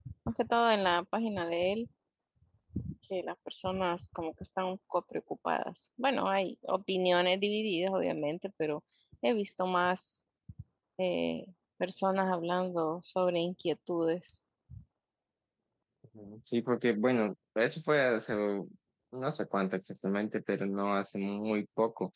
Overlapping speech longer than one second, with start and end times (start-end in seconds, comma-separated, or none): none